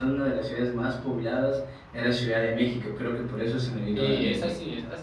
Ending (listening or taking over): taking over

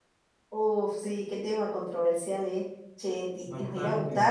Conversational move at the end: listening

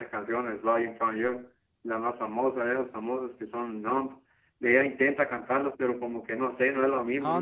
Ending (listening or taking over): taking over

